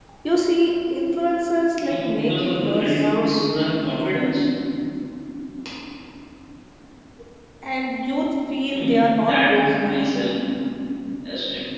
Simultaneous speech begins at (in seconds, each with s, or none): 1.8 s